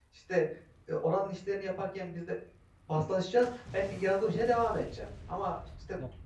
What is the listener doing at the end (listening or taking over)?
listening